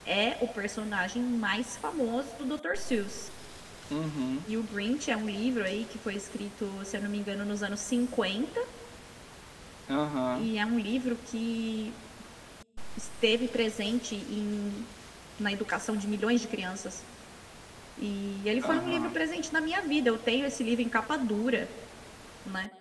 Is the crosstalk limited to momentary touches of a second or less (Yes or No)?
Yes